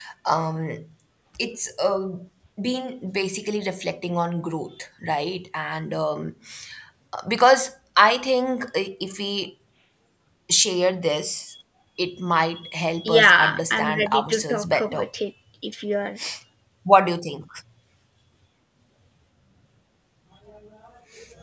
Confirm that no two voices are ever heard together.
No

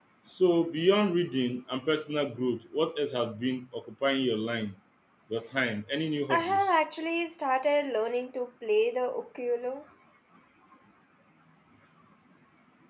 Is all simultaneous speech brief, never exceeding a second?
Yes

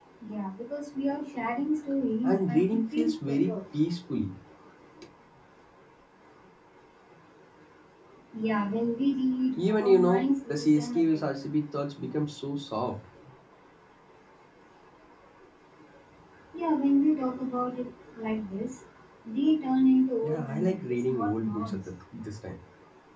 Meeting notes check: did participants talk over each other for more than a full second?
Yes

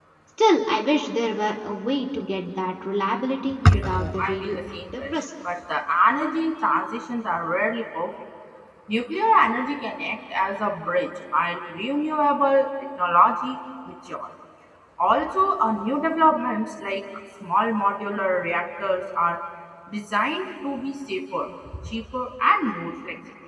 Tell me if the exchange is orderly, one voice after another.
No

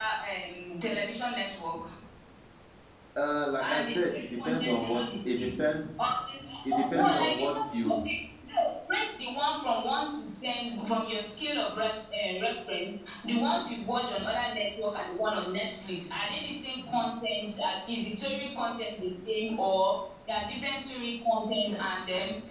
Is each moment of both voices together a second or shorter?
No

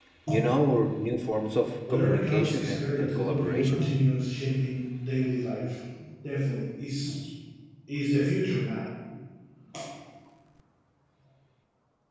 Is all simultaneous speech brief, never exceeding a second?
No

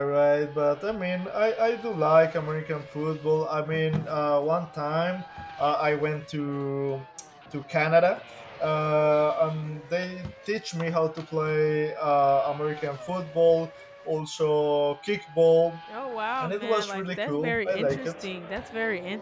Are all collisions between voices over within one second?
No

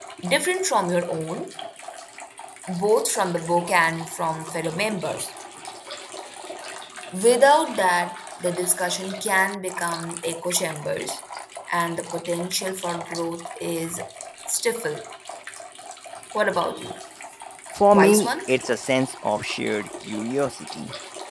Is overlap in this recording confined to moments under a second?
Yes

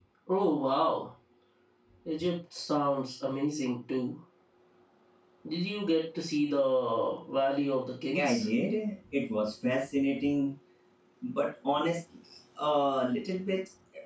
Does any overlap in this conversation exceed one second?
No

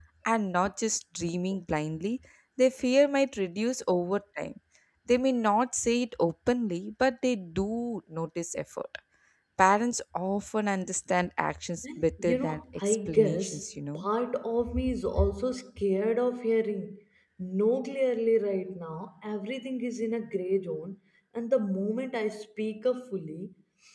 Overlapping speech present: Yes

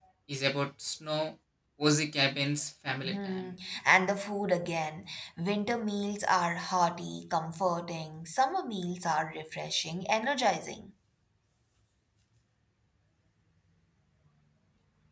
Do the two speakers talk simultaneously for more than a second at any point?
No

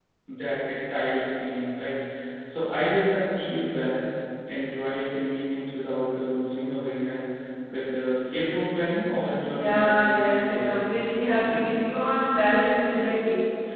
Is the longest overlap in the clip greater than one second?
Yes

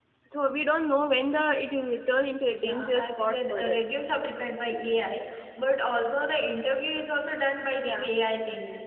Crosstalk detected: Yes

